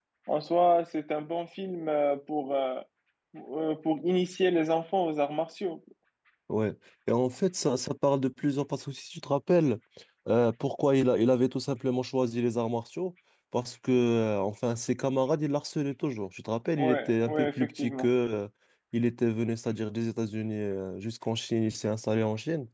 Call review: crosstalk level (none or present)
present